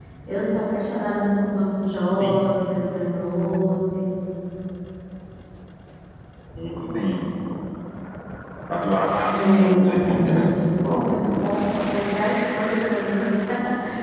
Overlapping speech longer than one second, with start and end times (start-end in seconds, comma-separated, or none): 9.3-10.5